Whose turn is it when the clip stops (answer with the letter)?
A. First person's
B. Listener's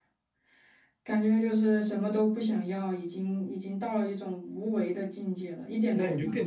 B